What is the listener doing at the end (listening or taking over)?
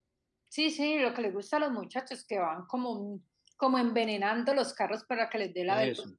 listening